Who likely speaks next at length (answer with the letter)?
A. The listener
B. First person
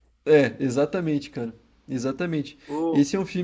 B